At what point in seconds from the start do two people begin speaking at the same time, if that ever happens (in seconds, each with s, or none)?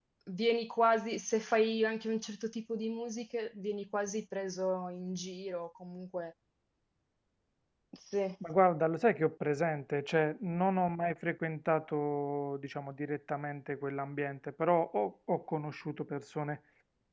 none